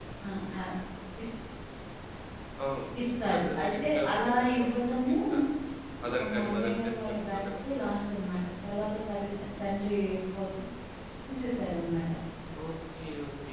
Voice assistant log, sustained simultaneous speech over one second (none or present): present